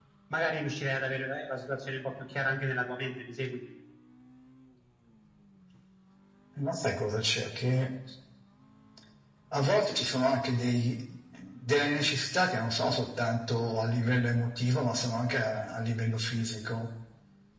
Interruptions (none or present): none